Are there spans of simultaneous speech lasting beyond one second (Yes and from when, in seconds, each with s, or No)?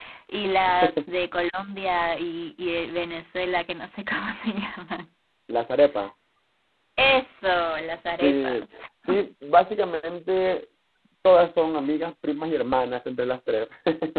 No